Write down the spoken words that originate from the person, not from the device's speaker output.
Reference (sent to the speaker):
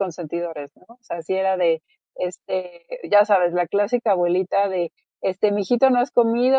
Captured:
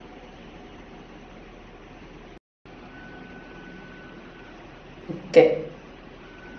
Okey.

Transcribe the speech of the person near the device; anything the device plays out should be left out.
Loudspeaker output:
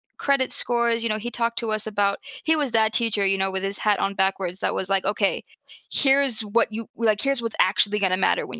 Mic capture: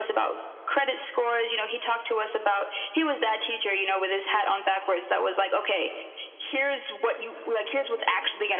none

